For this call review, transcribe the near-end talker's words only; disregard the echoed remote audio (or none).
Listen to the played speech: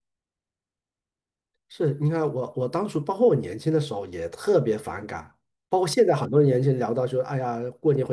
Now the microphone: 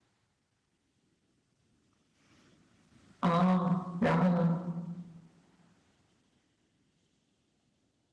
啊，然后呢？